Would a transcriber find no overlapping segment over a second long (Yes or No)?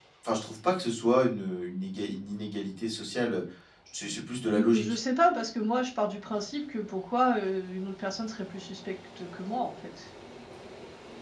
Yes